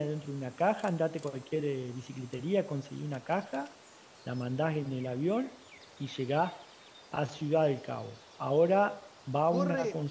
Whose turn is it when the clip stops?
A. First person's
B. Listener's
B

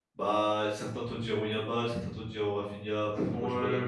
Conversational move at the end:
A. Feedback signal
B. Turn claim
B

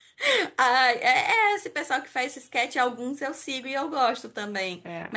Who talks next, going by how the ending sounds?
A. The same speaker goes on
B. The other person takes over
A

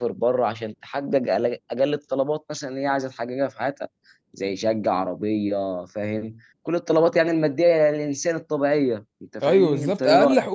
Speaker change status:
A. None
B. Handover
B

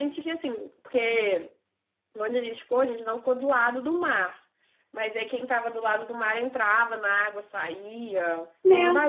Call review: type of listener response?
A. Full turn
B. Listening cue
A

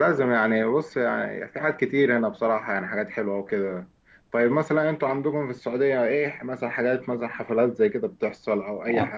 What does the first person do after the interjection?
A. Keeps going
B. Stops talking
B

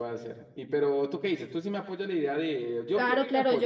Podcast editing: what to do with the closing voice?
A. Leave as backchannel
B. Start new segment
B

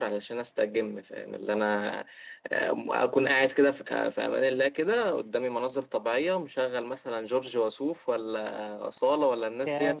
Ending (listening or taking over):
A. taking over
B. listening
B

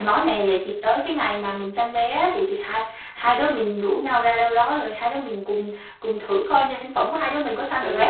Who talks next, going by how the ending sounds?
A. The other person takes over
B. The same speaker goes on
A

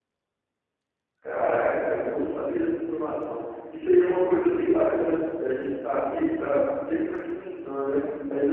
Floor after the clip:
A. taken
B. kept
B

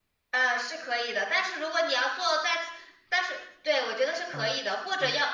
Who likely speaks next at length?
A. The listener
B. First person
B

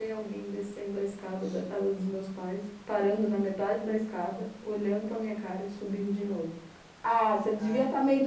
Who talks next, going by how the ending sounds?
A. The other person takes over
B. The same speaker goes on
B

